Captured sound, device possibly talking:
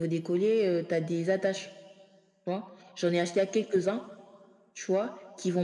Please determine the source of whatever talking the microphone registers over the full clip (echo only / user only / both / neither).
echo only